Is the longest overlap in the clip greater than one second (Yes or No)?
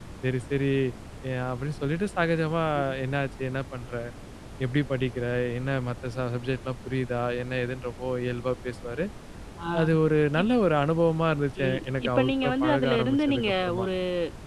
Yes